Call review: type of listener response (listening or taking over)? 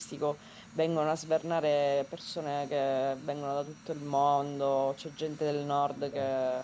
listening